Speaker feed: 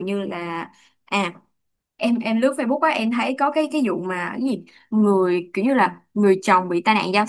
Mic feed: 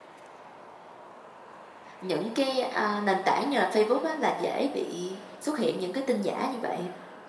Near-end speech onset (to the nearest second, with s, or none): 2 s